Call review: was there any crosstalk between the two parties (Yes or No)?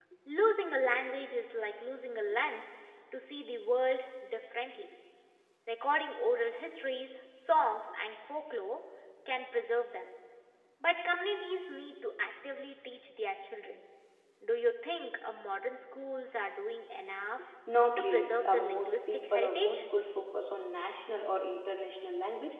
Yes